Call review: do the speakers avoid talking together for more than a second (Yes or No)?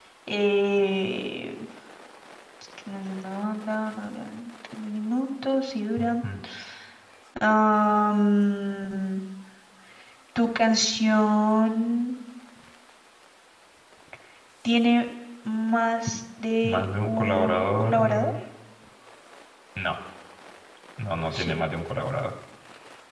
No